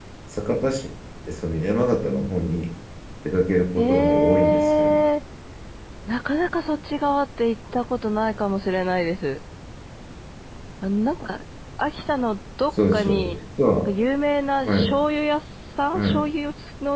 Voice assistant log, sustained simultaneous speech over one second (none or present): present